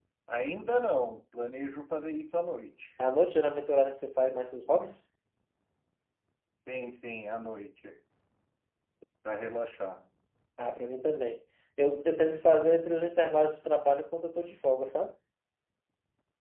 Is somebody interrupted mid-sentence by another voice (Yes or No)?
No